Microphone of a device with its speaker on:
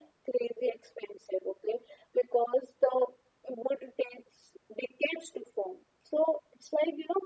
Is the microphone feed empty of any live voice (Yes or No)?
Yes